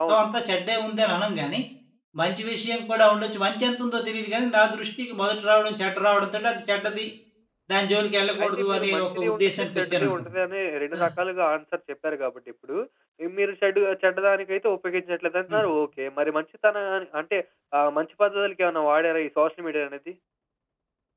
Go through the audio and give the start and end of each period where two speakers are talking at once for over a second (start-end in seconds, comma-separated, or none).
8.4-10.3